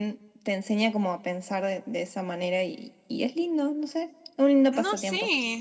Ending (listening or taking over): taking over